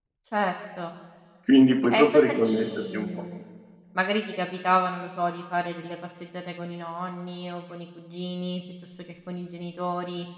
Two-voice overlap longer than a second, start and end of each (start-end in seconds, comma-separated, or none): 1.9-3.1